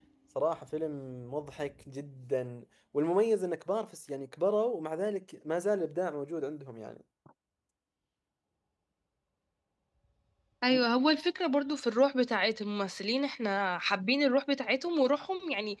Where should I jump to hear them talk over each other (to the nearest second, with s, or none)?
none